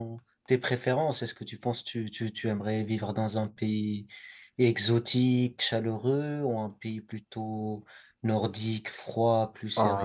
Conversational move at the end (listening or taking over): taking over